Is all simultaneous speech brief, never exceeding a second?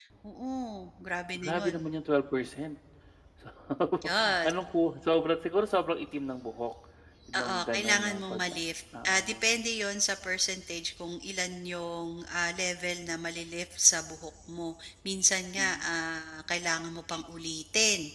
No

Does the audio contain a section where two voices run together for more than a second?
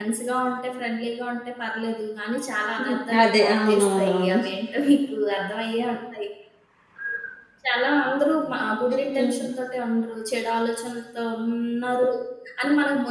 Yes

